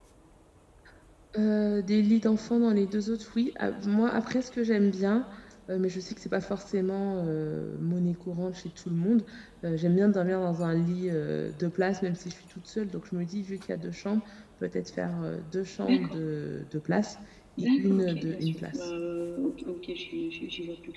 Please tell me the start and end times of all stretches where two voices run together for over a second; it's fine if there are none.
17.6-18.9

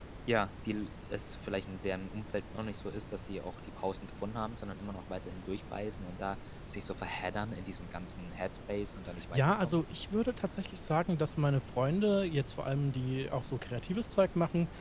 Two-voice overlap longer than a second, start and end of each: none

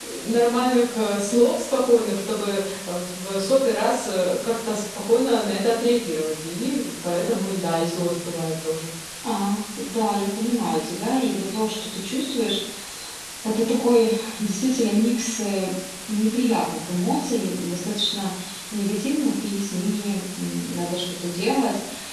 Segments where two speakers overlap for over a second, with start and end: none

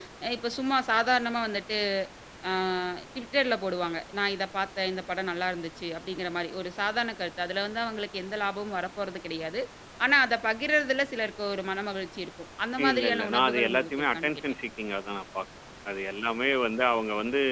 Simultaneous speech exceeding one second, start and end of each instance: 12.9-14.3

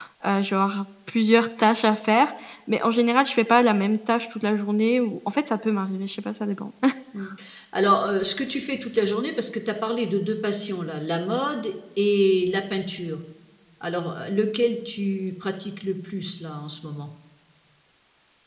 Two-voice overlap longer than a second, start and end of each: none

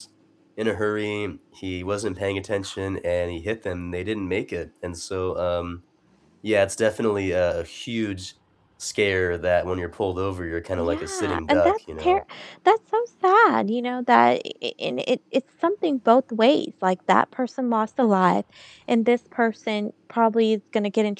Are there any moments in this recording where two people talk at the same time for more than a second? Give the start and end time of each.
10.8-12.2

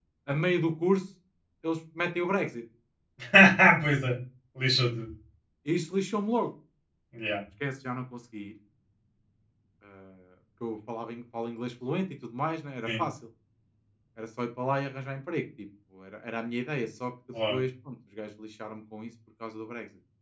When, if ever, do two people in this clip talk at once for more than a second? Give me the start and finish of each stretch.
none

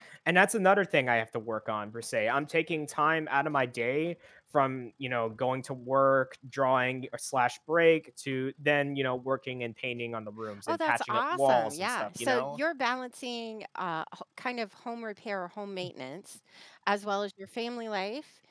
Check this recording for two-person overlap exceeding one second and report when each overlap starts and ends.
10.7-12.6

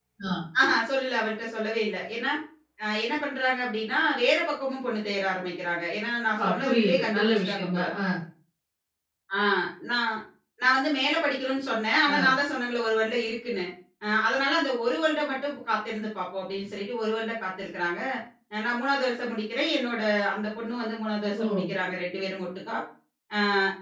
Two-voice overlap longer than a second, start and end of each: 6.4-7.8

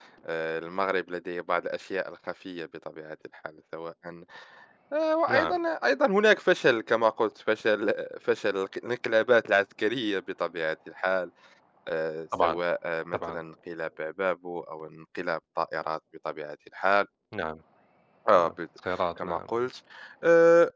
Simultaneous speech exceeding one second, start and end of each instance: none

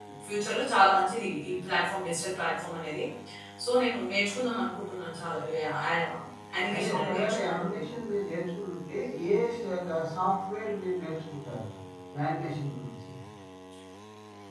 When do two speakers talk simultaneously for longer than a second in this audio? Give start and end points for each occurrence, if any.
6.7-8.0

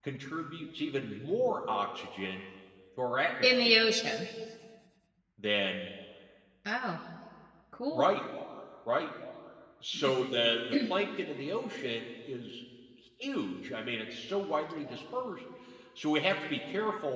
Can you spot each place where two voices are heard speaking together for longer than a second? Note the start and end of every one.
none

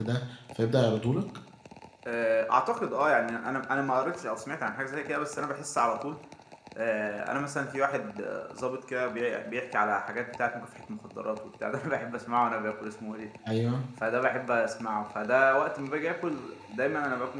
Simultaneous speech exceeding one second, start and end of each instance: none

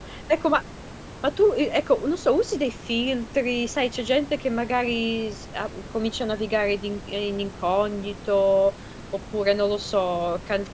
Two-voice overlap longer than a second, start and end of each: none

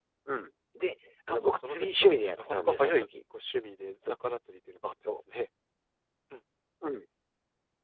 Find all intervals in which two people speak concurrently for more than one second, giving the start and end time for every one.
1.3-3.1

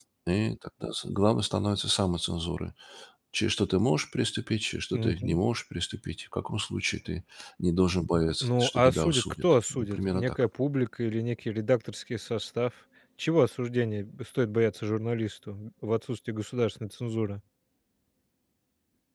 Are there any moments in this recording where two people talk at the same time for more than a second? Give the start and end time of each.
8.4-10.3

